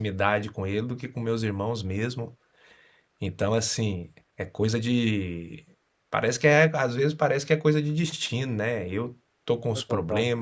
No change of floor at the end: Yes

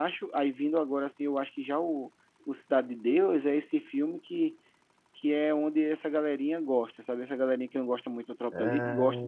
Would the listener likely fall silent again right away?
No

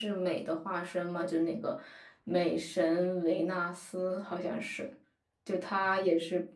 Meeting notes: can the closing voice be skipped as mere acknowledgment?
Yes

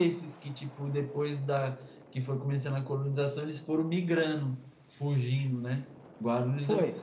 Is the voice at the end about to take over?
Yes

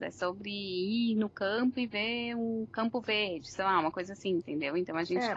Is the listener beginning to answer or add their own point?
Yes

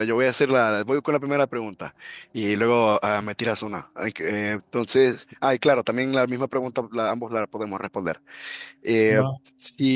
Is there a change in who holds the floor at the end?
No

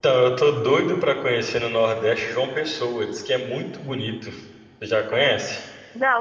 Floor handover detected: Yes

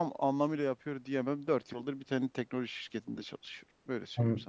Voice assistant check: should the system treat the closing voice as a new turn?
Yes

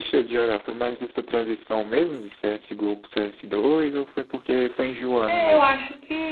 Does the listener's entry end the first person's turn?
Yes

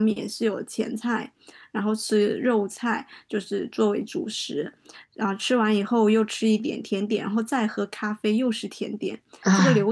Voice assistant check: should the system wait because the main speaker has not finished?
Yes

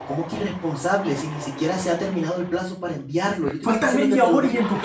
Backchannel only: No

